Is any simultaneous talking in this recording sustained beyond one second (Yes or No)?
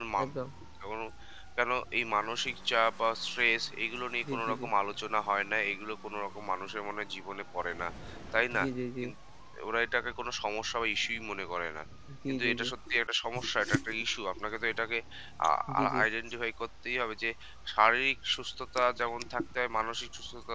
No